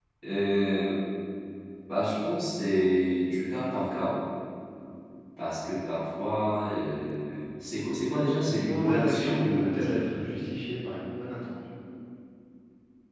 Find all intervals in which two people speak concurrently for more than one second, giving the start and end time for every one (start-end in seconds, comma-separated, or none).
8.5-10.0